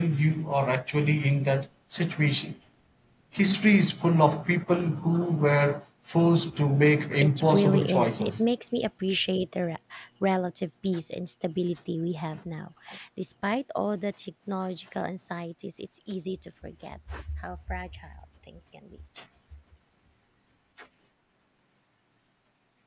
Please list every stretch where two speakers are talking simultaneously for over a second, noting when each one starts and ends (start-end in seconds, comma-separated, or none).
7.2-8.4